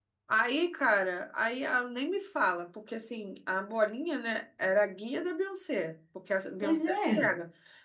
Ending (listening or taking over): listening